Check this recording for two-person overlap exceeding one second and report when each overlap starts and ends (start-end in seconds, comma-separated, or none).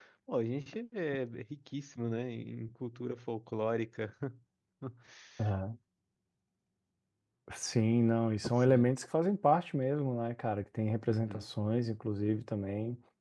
none